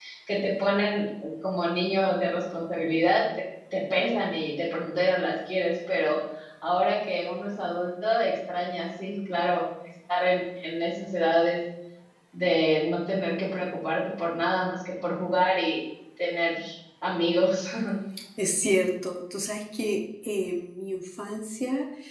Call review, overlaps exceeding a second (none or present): none